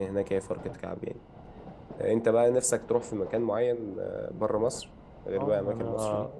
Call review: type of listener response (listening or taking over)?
taking over